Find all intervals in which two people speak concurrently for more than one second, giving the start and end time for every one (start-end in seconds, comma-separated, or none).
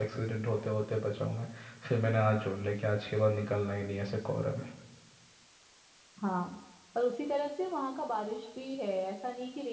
none